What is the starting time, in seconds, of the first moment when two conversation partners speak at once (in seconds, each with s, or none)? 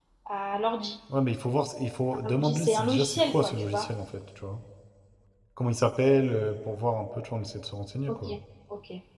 2.2 s